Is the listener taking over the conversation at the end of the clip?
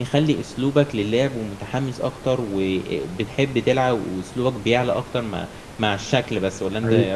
Yes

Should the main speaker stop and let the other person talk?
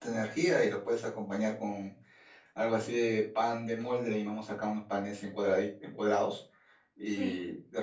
No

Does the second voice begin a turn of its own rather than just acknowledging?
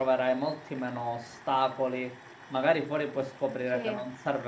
No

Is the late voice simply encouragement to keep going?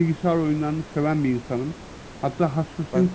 Yes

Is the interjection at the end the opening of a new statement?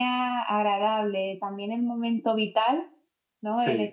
No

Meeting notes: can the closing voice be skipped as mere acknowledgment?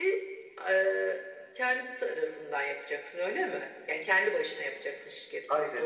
No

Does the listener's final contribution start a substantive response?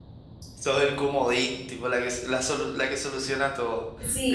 Yes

